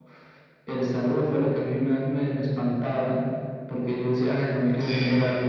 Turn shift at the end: No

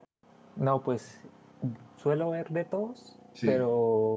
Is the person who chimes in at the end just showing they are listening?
Yes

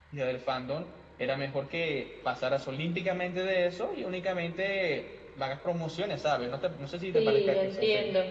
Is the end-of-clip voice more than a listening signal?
Yes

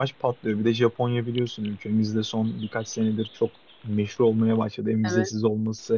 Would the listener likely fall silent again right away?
Yes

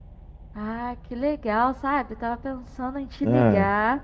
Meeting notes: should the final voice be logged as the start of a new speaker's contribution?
No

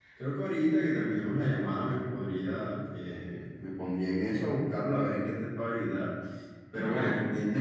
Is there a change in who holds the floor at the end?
No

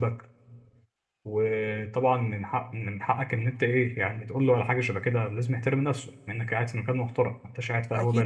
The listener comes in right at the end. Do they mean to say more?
Yes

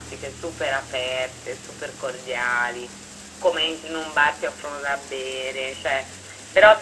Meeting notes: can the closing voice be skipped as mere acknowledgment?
Yes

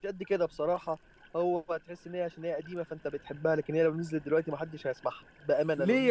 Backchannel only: No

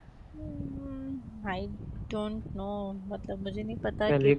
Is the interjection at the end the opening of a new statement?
Yes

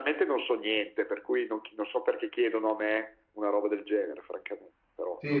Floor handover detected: Yes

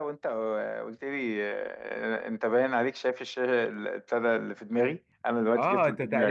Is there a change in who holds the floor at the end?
Yes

